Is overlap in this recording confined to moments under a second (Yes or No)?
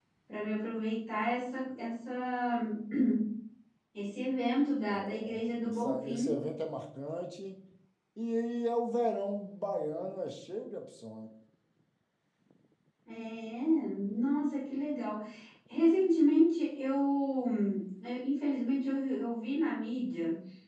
No